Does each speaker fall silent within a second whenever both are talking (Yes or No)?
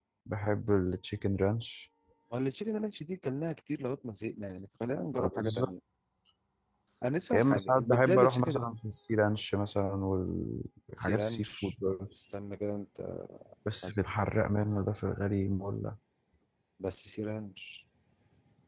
No